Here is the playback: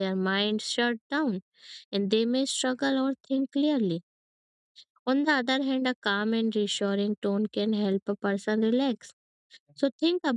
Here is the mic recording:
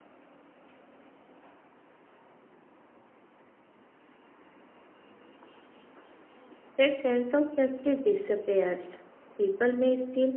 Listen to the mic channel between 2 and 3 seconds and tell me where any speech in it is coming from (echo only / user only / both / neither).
neither